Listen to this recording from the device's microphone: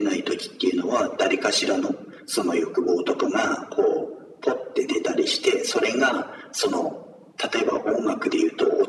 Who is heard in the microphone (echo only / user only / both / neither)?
echo only